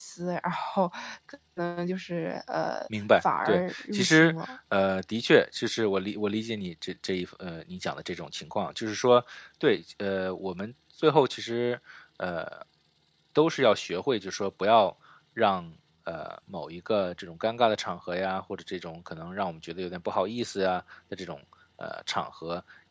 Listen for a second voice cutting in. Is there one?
Yes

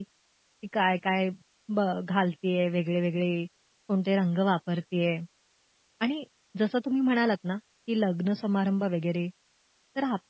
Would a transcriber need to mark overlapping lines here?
No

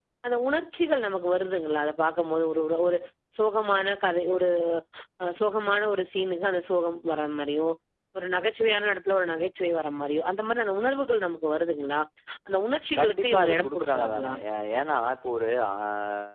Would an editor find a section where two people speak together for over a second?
Yes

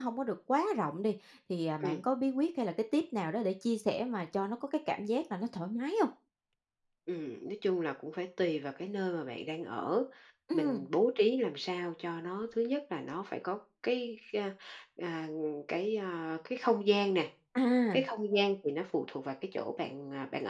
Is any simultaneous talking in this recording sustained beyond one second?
No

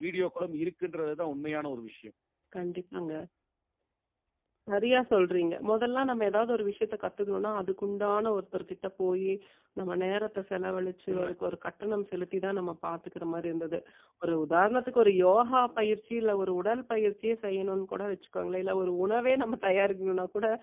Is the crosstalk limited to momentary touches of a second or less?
Yes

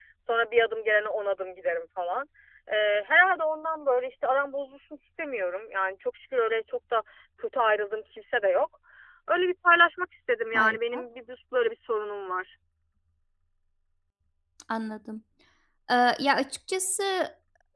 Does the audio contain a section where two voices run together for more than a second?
No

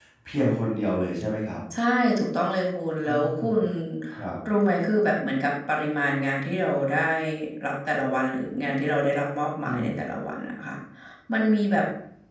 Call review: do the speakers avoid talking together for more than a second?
Yes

